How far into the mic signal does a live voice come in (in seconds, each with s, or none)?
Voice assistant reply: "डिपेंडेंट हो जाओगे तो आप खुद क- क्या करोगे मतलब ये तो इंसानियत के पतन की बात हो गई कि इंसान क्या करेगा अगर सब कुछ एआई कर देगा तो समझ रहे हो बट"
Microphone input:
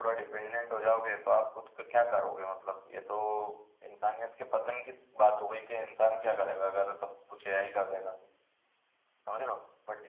none